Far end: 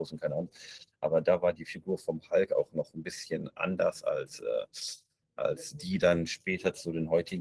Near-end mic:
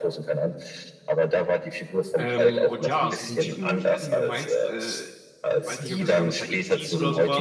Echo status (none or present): present